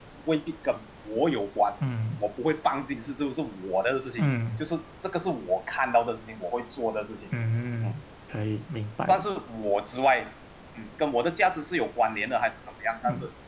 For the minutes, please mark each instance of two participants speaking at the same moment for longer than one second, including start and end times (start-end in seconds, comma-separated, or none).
none